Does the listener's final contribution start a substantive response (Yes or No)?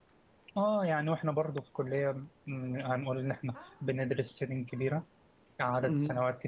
No